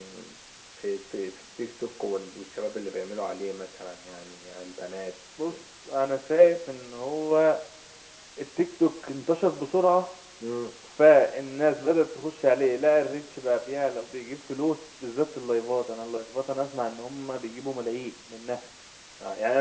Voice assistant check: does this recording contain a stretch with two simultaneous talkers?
No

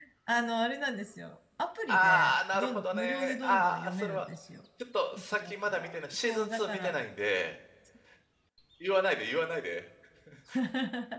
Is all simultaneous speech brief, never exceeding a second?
No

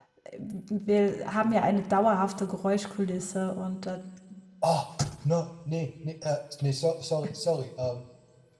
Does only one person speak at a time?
Yes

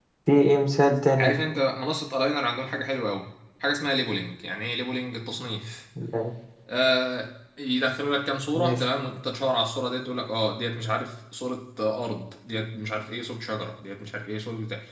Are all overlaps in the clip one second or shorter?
Yes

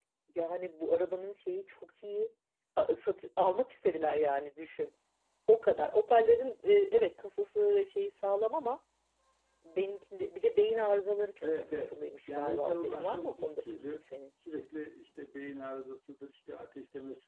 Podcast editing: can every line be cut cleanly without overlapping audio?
No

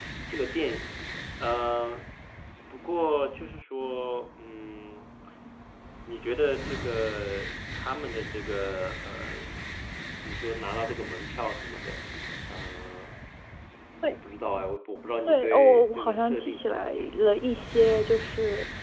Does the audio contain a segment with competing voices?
Yes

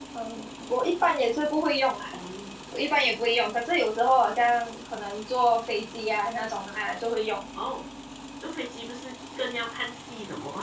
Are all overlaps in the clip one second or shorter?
Yes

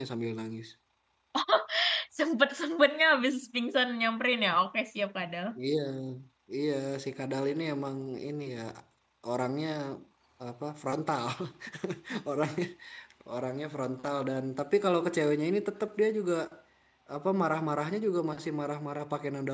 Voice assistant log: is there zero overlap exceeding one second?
Yes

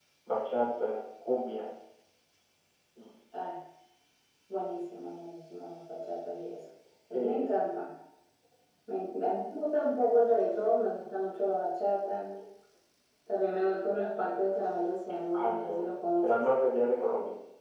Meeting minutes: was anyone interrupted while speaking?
Yes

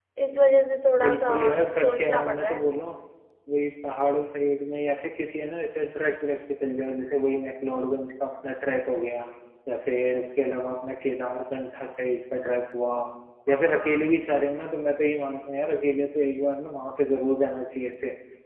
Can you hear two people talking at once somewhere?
Yes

